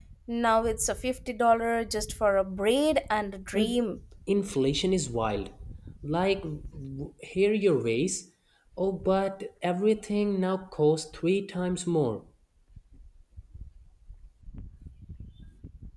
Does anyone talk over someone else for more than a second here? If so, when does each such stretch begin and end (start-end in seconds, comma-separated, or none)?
none